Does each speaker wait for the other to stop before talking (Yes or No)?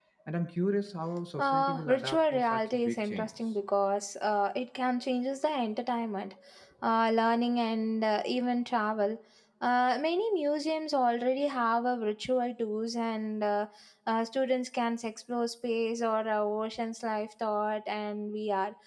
No